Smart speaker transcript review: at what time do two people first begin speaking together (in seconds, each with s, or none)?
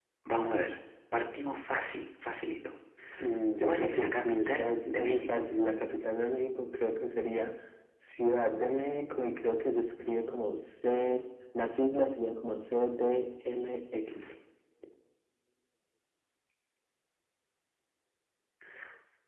3.6 s